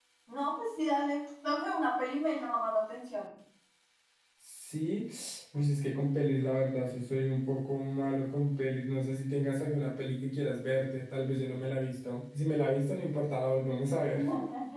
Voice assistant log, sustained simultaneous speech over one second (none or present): none